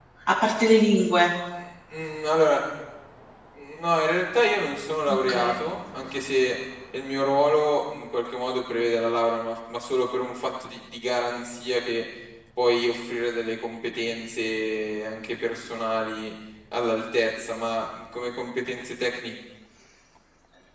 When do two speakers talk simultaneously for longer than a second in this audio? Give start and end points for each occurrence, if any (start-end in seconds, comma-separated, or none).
none